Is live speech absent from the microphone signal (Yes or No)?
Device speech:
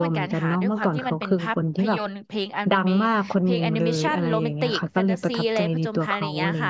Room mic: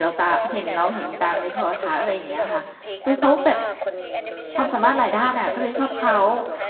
No